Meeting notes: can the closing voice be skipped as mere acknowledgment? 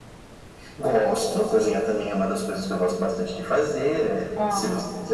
Yes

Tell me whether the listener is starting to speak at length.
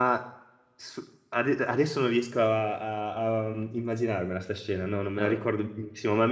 No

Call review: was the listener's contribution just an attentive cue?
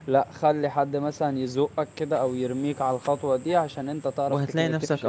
No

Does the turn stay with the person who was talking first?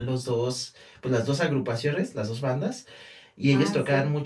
Yes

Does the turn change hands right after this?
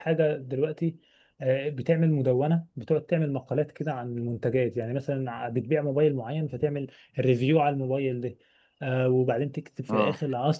No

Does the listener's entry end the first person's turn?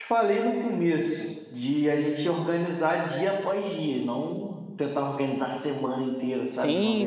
Yes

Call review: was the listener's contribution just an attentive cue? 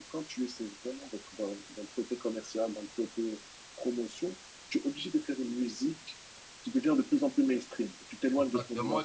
No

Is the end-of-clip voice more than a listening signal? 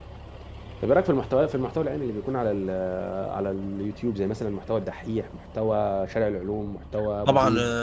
Yes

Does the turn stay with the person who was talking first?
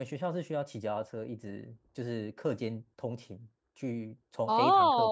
No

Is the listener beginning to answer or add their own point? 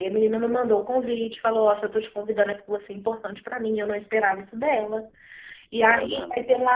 No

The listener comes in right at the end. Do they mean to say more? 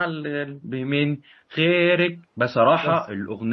No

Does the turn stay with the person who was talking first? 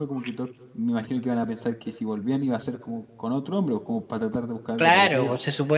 No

